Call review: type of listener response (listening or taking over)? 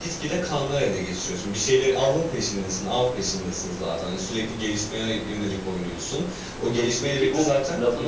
taking over